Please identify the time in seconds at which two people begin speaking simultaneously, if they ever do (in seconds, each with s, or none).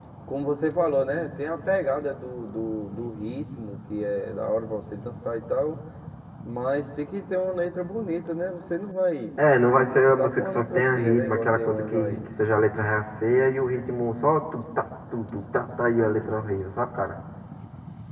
9.9 s